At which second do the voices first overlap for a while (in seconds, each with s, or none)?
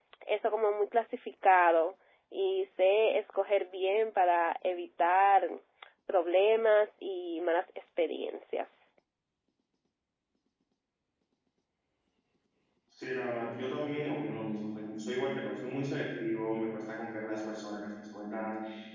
none